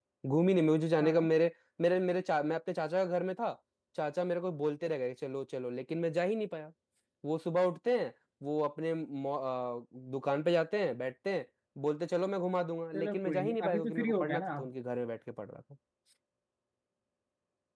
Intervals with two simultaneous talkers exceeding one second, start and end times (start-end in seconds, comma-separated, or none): 12.9-14.7